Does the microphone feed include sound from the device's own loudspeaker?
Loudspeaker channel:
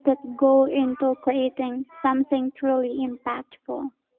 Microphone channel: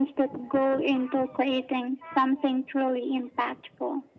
Yes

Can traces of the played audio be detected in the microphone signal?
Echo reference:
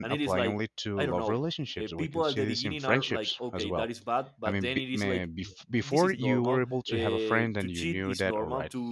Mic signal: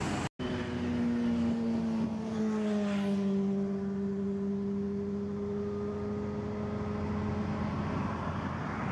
No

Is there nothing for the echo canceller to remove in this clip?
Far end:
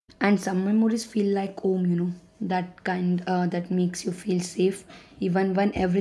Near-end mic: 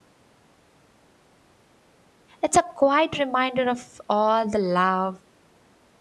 Yes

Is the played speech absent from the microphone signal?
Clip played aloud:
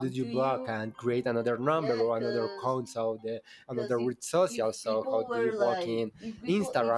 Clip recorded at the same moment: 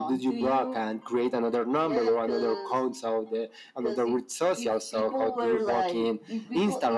No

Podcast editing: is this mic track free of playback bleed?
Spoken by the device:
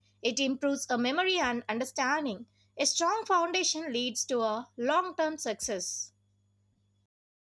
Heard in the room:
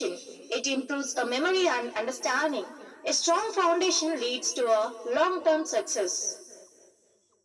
No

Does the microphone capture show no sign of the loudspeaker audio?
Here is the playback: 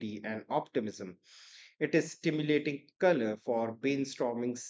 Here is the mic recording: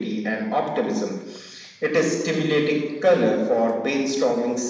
No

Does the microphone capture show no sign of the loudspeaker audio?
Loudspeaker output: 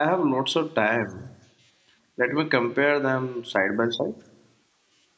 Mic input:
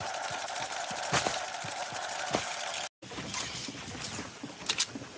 Yes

